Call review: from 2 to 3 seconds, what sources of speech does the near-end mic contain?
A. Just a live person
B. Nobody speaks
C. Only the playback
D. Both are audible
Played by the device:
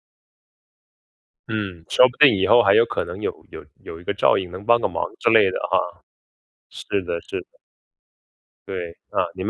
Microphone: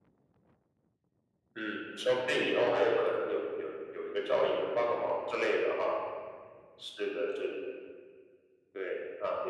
C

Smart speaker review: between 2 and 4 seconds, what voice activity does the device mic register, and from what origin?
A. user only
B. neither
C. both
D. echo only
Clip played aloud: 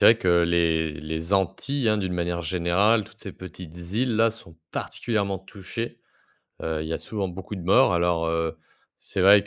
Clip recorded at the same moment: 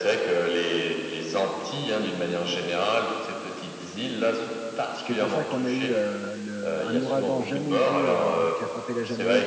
D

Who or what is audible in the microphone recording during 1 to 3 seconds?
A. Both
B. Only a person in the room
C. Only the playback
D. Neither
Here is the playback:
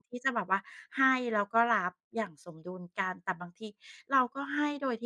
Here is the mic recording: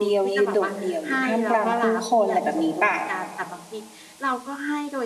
A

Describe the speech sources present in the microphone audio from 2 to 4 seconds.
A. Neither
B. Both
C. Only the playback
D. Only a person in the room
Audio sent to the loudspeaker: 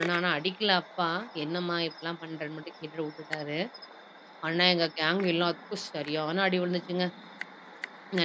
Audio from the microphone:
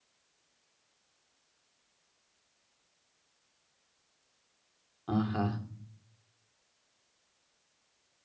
A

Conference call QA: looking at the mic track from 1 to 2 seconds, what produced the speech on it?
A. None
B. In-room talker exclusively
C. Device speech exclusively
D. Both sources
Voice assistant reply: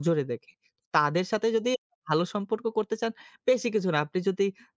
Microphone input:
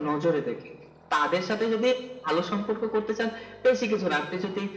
C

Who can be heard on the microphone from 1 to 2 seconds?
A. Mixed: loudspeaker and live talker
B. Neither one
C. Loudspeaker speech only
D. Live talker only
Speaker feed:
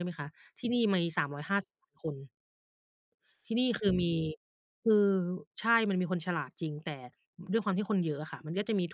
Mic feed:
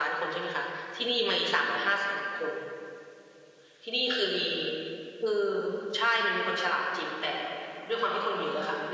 C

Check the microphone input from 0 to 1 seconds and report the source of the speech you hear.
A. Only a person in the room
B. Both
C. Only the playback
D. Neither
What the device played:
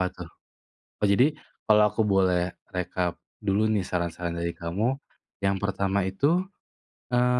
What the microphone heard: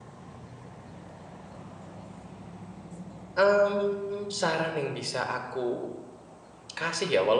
D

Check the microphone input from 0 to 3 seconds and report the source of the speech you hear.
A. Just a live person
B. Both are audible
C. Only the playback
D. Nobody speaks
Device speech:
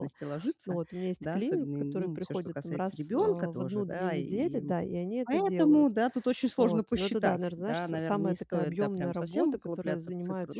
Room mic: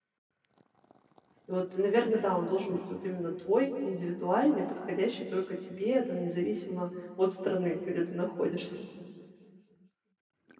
A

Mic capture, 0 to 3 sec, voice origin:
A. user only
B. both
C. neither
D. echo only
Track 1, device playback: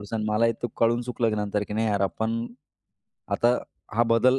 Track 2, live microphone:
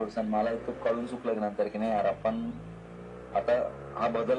D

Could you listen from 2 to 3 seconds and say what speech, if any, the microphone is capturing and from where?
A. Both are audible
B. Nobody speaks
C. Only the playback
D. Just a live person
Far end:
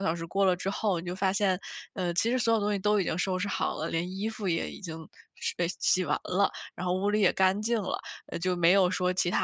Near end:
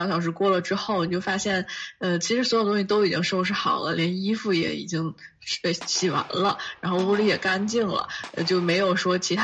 C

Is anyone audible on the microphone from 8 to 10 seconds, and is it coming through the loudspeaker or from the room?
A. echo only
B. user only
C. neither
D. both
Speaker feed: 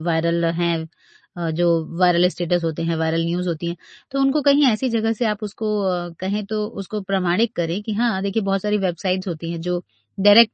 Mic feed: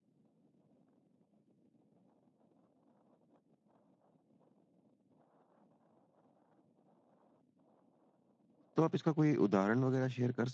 B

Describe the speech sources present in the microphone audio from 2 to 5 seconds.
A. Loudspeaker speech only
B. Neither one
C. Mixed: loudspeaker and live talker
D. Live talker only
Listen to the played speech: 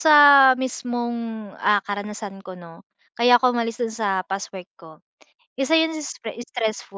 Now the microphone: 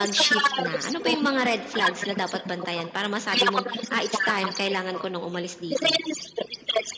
C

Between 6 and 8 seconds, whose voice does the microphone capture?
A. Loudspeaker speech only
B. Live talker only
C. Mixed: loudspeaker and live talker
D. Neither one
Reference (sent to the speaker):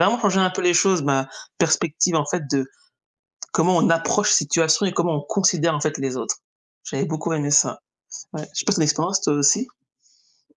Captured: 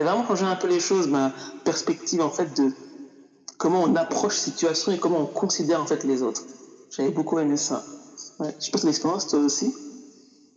A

